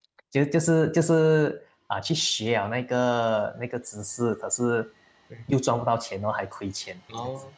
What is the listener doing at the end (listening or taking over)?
taking over